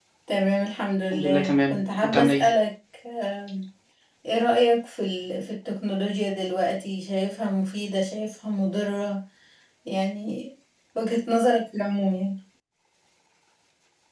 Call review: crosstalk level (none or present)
present